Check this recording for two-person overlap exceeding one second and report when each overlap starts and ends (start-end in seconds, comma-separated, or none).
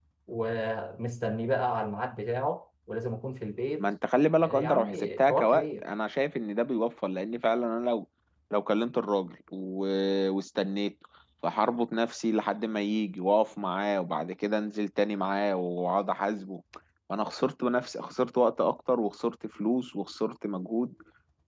4.4-5.8